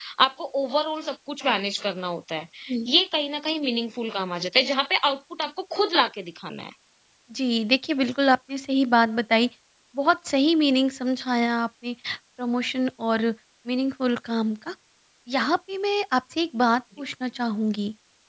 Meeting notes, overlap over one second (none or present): none